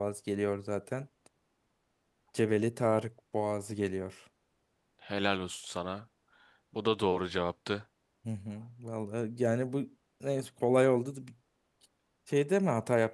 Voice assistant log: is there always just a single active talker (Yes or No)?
Yes